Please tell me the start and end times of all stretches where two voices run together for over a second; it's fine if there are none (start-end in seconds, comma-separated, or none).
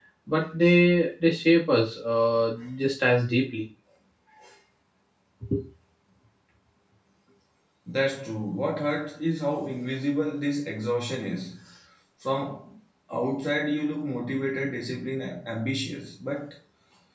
none